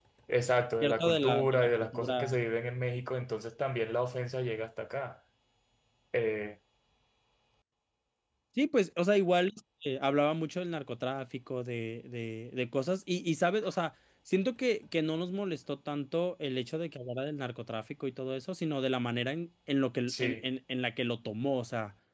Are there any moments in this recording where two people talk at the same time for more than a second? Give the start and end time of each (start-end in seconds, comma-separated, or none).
0.8-2.4